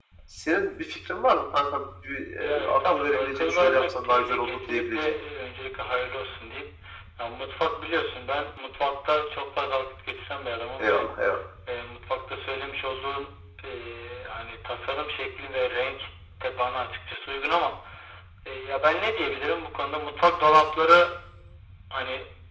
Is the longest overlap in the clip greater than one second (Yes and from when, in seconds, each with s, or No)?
Yes, from 2.4 s